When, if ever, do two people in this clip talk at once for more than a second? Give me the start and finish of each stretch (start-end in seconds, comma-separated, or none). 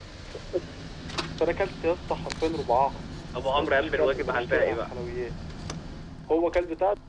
3.5-4.9